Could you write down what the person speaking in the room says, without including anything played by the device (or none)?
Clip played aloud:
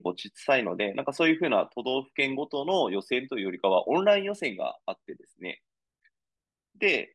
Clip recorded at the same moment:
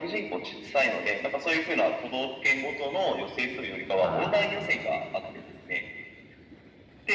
は